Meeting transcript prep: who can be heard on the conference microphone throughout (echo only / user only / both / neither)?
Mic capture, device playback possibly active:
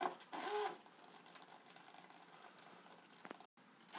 neither